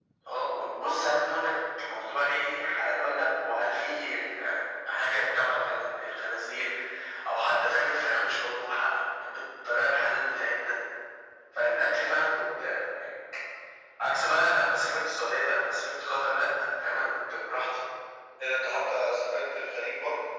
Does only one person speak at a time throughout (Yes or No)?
Yes